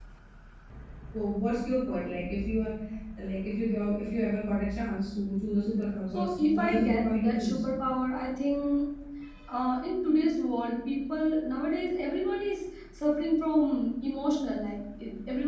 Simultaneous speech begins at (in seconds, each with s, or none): 6.1 s